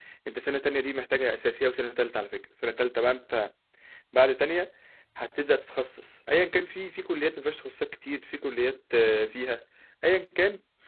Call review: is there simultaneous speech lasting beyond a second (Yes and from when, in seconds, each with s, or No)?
No